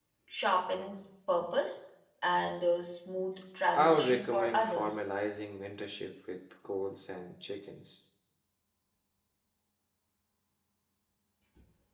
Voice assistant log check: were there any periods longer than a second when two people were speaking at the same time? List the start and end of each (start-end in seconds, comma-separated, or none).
3.7-5.0